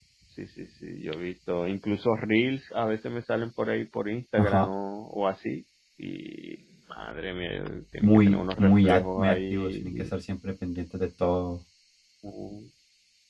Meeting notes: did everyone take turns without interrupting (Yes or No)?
No